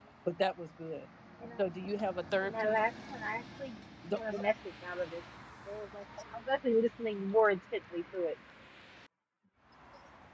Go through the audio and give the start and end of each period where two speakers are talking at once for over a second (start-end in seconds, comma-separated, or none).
none